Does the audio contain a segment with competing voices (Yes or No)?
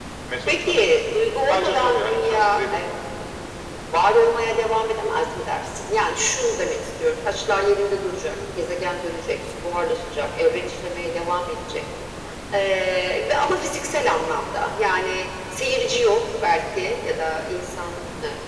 Yes